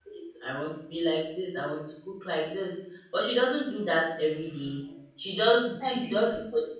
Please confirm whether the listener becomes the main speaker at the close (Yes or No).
No